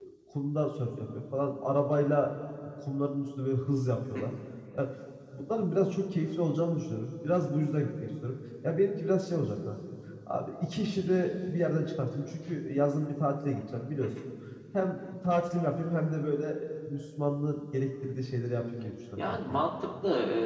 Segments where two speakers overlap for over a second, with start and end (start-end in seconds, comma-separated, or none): none